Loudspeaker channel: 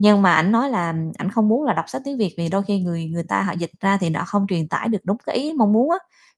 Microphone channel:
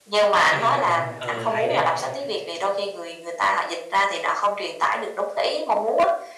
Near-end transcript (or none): à, ờ, hay đấy,